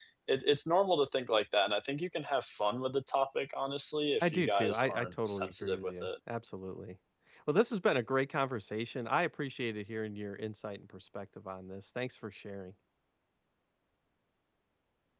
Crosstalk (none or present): present